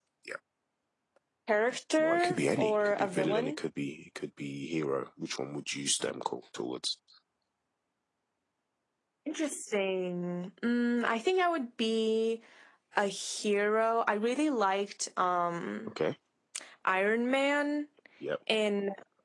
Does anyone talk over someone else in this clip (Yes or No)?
Yes